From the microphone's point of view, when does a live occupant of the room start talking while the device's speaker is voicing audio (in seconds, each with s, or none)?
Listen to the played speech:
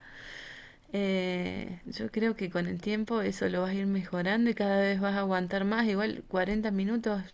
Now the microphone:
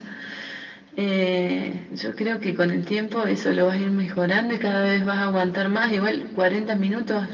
none